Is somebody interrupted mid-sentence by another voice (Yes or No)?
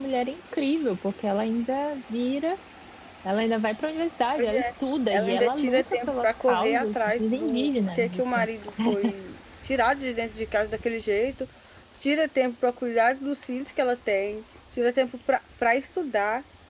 Yes